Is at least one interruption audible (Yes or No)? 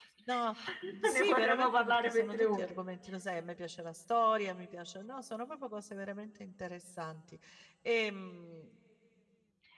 Yes